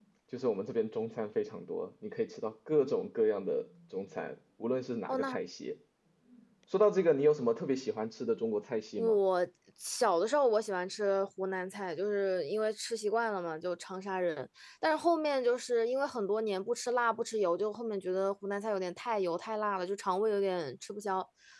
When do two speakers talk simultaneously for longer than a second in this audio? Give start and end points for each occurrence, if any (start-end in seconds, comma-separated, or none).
none